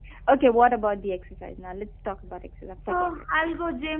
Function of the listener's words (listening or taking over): taking over